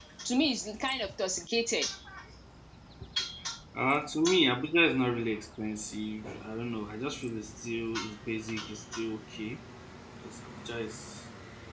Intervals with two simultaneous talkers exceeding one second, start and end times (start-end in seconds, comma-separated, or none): none